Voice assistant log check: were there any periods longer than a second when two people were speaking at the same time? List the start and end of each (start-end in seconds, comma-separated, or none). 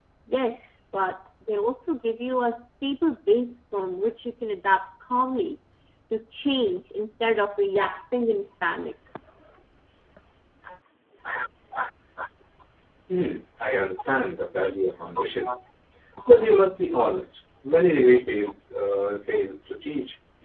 none